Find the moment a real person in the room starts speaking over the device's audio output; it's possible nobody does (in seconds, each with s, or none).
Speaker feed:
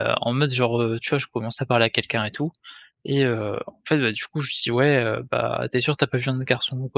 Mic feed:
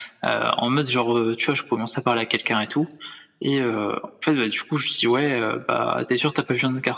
none